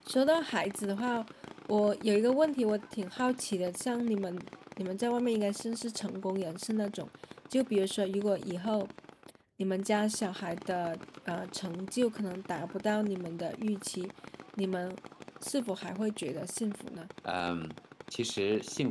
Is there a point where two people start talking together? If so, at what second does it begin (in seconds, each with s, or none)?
none